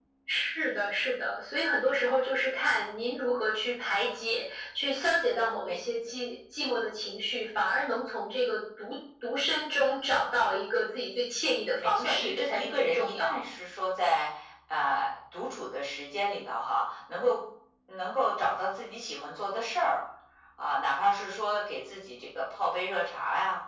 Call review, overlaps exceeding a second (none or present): present